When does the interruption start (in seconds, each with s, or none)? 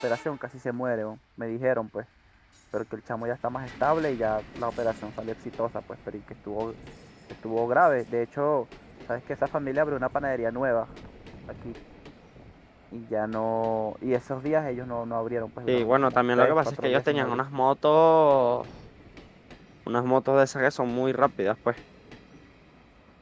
15.7 s